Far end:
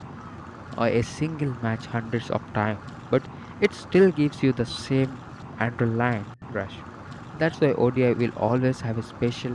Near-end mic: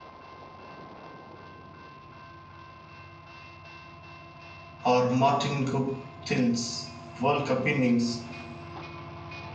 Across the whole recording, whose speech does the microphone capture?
user only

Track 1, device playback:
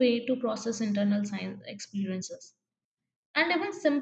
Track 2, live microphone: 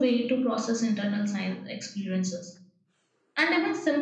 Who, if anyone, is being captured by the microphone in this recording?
echo only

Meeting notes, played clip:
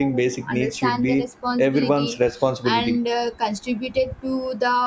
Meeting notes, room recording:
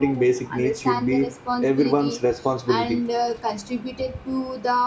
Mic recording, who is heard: echo only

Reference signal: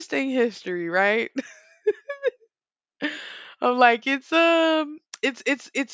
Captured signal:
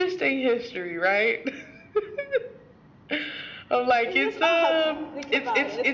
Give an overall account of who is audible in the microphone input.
both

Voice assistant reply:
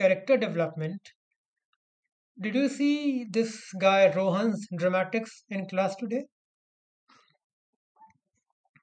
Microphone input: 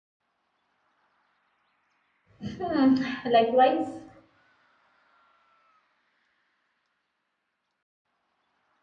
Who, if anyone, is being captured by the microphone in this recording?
user only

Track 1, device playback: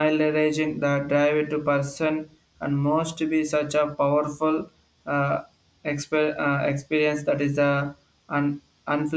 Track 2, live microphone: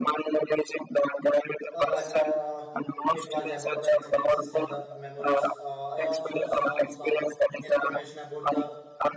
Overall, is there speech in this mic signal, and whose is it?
both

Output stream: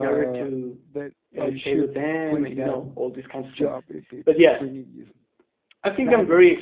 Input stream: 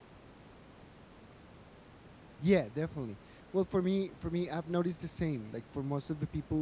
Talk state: user only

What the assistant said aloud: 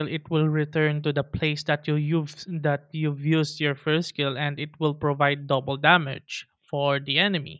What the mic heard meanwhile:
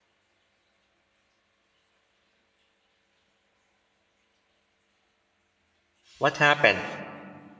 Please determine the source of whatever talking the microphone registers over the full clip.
user only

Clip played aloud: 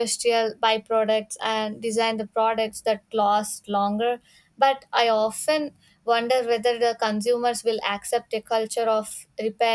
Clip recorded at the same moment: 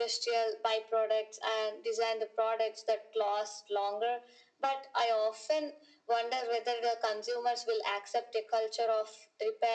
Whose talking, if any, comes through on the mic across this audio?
echo only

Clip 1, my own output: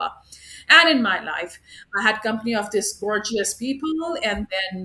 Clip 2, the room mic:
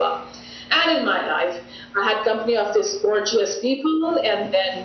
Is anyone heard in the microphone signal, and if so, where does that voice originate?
echo only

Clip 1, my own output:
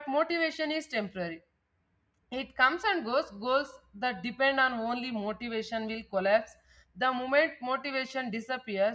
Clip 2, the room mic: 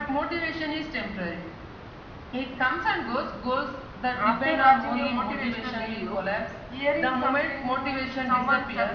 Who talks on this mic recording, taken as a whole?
both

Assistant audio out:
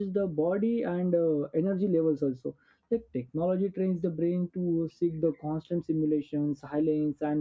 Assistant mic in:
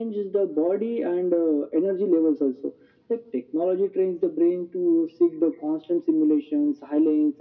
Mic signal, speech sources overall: echo only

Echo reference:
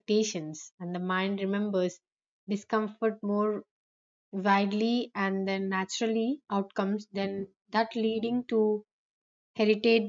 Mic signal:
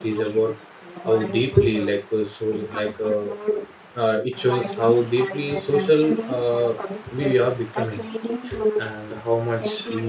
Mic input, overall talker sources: both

